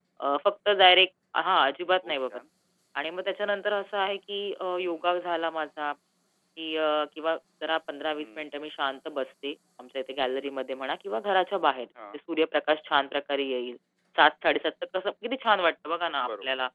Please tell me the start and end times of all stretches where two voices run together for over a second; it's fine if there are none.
none

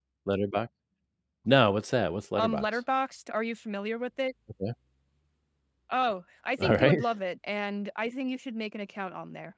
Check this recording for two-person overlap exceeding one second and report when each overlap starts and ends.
none

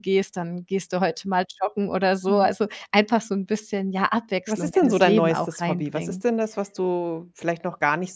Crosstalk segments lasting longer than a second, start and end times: 4.5-6.2

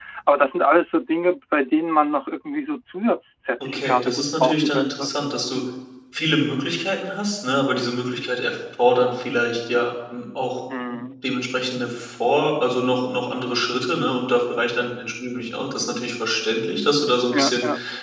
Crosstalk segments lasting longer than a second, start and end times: 3.6-5.1

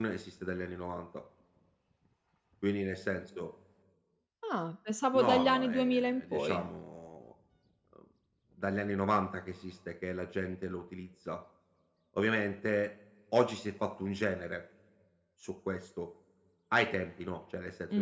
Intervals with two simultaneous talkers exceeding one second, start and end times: 5.1-6.6

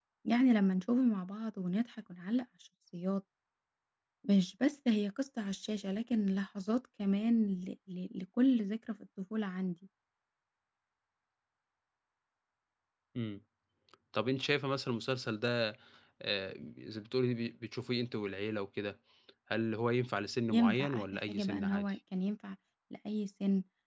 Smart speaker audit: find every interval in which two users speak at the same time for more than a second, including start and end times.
20.5-21.9

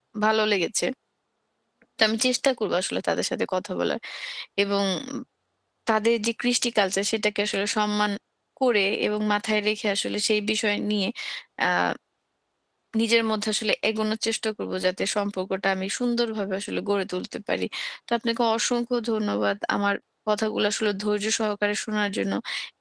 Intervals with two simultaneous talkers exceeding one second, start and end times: none

